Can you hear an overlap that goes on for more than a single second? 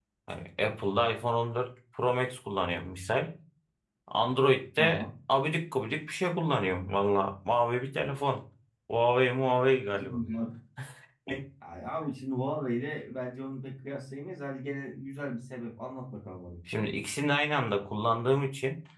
No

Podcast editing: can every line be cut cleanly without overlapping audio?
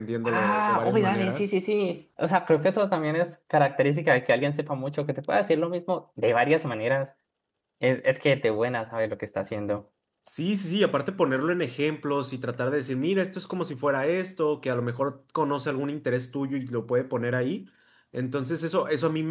No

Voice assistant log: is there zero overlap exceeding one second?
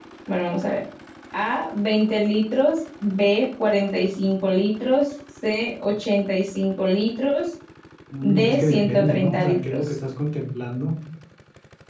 No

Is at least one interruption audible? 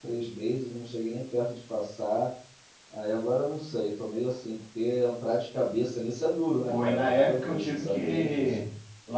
Yes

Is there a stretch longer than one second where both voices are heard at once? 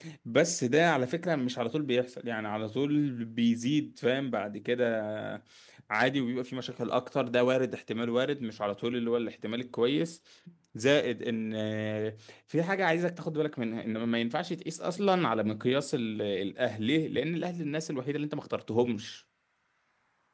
No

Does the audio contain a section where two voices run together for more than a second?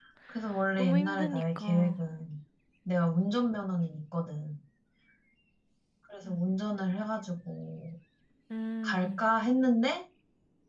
Yes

